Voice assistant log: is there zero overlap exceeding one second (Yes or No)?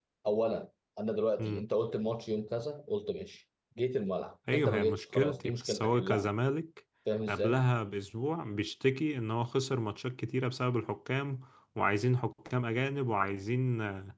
No